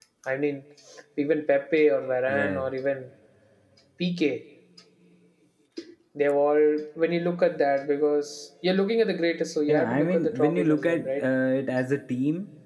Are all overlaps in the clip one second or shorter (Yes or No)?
No